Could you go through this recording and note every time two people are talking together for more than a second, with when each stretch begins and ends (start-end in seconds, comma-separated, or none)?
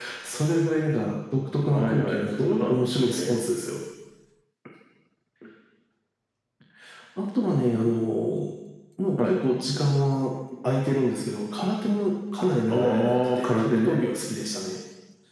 1.7-3.4, 12.7-14.0